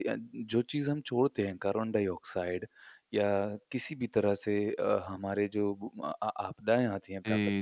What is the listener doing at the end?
listening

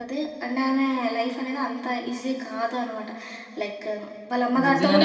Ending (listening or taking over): taking over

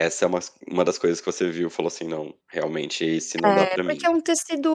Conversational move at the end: taking over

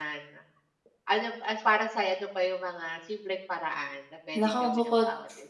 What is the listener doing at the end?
taking over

